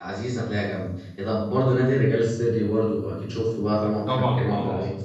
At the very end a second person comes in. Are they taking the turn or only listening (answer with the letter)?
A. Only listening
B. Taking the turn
B